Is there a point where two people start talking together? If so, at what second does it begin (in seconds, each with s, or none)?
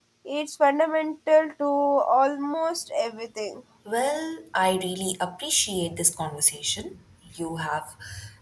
none